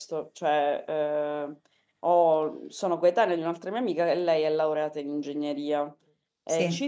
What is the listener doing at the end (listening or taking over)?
listening